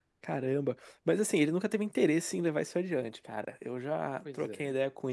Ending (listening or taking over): listening